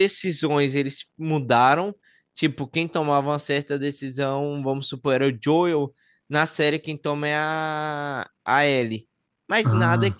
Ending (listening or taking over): listening